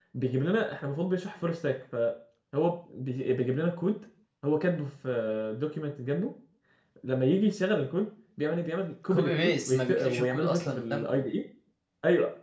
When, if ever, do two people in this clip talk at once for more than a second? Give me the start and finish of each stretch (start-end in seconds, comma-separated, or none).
9.1-11.3